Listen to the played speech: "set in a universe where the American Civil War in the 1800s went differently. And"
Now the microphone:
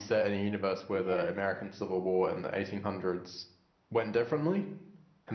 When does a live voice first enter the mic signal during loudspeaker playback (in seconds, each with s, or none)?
0.9 s